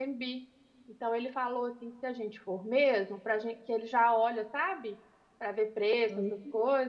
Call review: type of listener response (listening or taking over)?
listening